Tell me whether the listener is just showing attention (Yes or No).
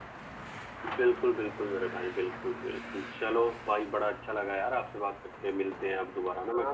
No